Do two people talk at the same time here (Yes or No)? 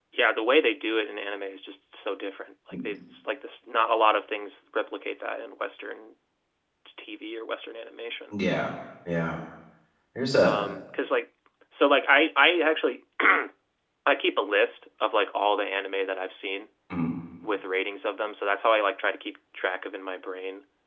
No